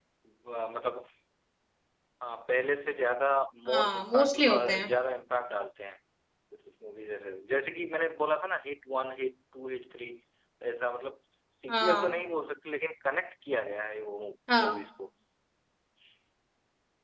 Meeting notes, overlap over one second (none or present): present